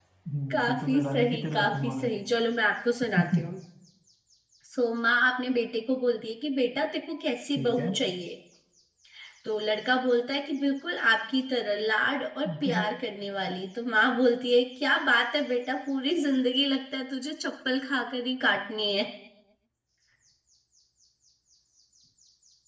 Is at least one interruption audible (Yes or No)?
Yes